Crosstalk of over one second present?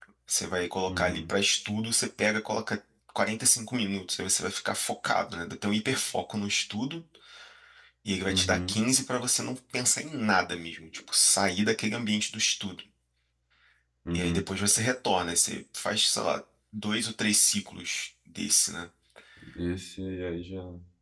No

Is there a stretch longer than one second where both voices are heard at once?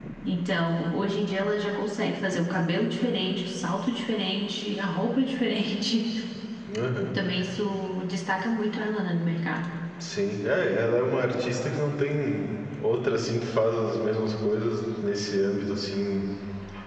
No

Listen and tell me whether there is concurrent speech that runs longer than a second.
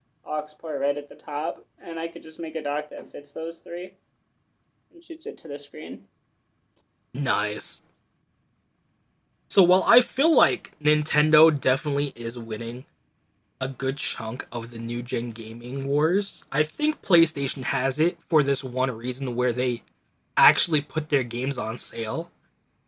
No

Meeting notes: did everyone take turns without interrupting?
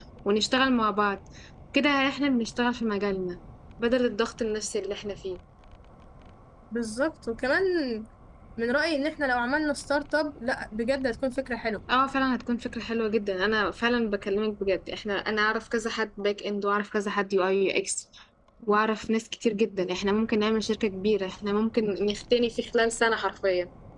Yes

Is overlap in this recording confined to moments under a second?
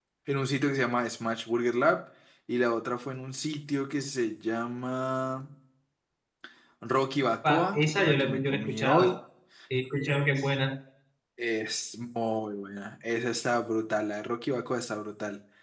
No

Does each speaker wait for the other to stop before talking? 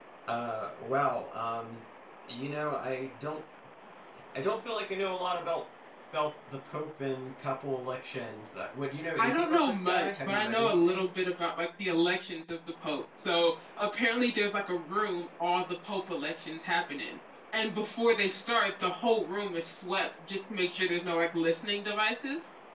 No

